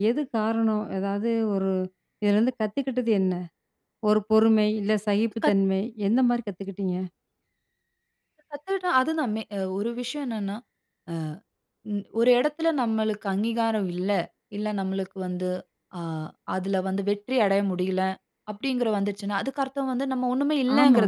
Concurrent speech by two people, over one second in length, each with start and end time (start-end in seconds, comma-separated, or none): none